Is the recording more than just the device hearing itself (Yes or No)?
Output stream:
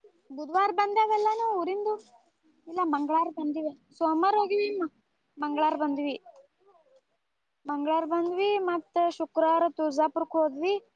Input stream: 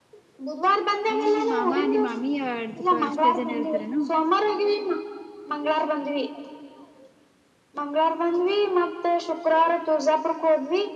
Yes